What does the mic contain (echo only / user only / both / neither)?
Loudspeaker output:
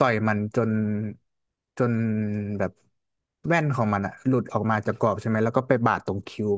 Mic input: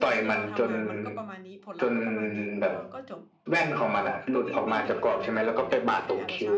both